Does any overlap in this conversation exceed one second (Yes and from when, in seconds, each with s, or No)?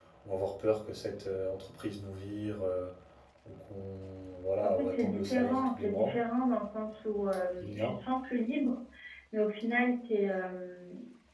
Yes, from 4.6 s